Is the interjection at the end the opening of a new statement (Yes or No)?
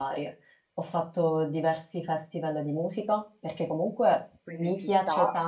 No